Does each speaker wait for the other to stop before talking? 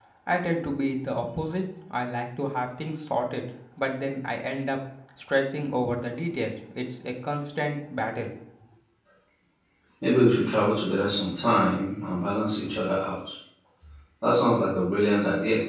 Yes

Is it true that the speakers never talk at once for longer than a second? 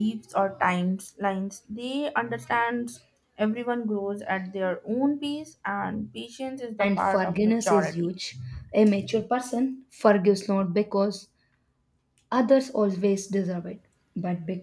No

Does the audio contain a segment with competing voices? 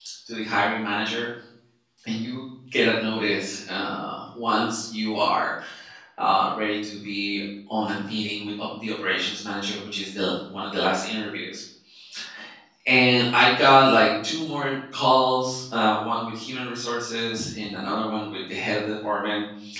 No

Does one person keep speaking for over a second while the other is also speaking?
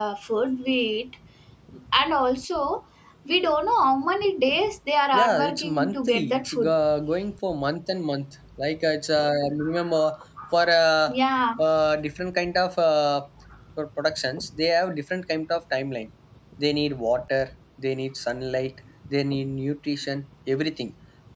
Yes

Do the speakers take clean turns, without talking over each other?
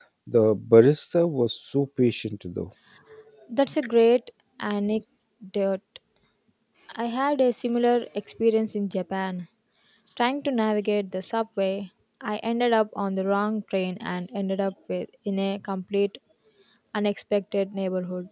Yes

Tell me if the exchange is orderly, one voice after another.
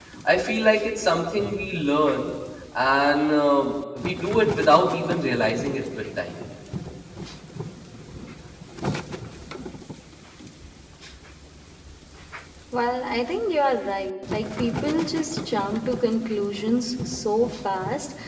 Yes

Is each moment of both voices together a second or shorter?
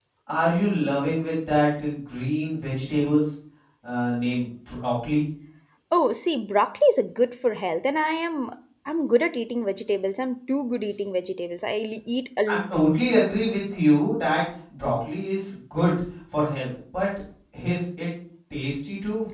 Yes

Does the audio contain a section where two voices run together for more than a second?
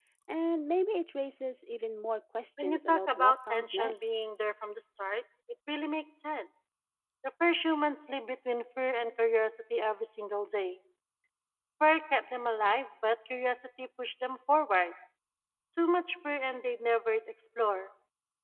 Yes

